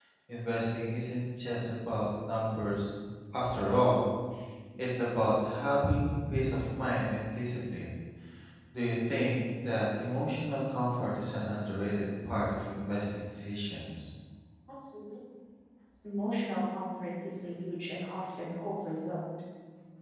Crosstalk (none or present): none